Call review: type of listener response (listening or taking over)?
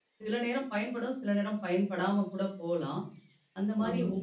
listening